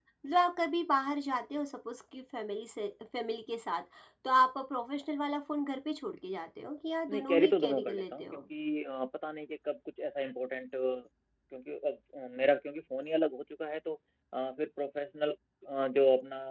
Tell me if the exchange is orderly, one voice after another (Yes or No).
No